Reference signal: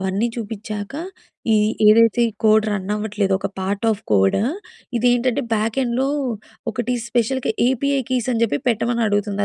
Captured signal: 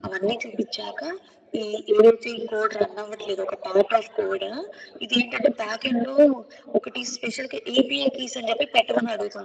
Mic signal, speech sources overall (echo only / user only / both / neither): echo only